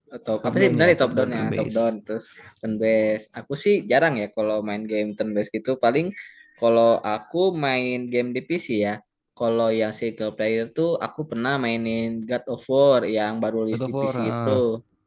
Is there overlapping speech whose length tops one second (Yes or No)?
Yes